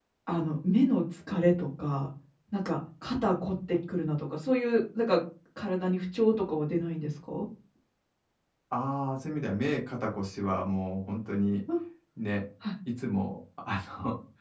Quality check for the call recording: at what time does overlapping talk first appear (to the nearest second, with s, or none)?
none